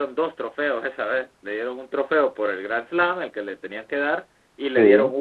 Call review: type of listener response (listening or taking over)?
listening